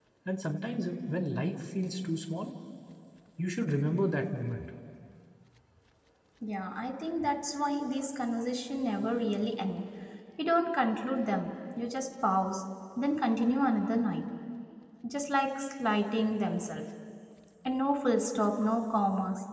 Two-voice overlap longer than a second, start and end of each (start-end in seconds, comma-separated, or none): none